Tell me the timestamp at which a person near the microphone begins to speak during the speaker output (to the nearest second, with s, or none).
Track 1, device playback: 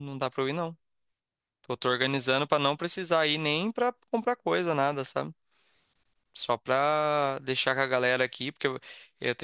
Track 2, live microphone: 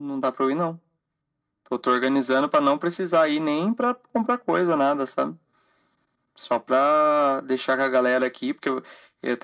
none